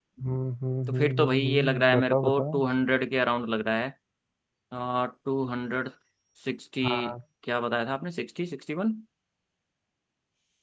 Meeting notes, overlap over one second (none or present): present